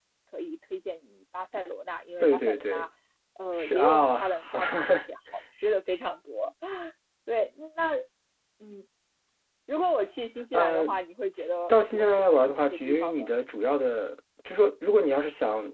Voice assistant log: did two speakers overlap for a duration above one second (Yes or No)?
Yes